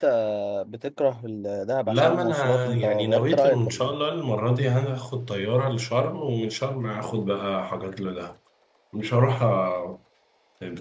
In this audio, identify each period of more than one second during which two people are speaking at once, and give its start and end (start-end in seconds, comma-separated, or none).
1.9-3.9